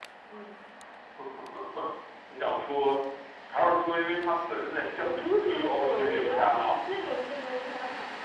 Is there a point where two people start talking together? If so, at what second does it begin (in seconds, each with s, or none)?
5.0 s